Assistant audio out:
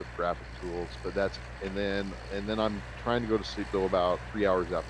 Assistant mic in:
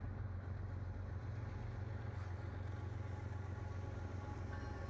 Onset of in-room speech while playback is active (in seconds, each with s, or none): none